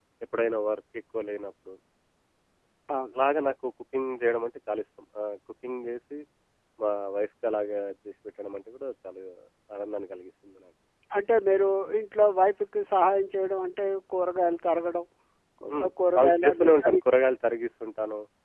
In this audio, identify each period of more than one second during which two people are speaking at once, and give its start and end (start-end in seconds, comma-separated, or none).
15.7-17.0